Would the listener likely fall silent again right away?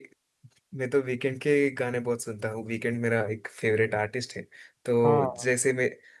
Yes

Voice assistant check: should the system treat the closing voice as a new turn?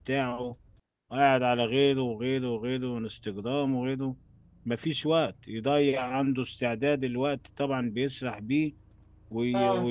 No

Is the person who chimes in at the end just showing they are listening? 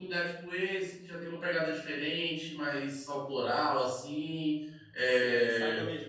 No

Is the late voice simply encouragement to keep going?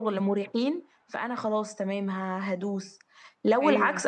Yes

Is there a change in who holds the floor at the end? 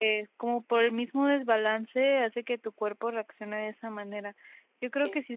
No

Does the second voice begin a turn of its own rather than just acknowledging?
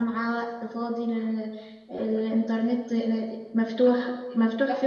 No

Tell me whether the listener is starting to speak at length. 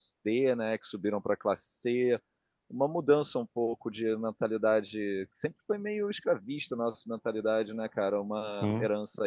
No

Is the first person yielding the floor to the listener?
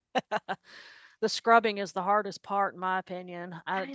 No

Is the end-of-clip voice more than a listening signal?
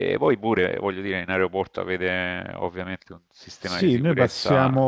Yes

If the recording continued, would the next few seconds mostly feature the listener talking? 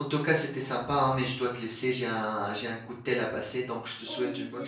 Yes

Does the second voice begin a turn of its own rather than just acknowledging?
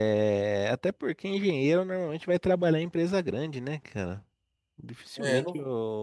No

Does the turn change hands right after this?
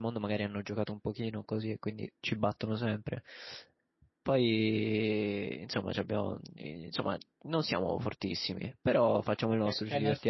Yes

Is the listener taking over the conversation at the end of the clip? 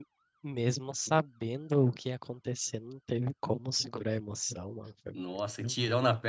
Yes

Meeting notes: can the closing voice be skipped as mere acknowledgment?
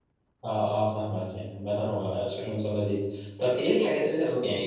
Yes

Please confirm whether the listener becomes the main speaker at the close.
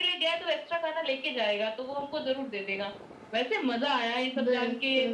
No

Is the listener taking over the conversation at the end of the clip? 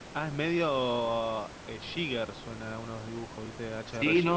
Yes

